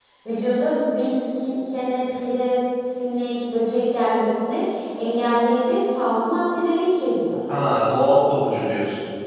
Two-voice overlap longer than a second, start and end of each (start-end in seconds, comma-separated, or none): none